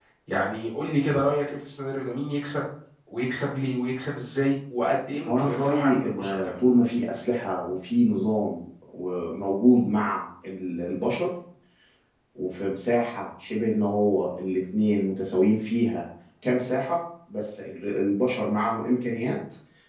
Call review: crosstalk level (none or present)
present